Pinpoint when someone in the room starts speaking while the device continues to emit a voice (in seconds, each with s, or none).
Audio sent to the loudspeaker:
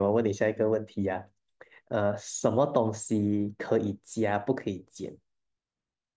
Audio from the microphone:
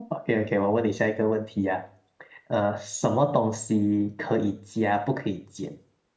none